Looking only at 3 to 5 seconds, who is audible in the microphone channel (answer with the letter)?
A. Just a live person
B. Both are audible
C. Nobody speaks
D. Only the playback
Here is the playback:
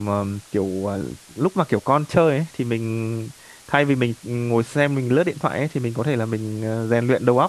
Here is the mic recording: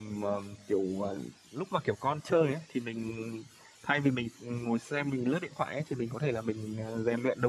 D